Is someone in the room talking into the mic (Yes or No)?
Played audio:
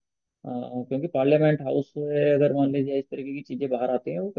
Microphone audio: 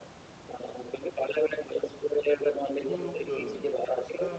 Yes